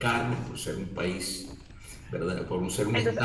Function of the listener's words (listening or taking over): listening